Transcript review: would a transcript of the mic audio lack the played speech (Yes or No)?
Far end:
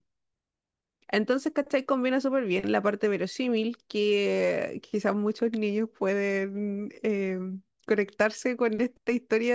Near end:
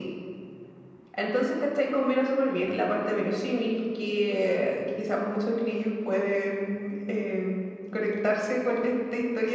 No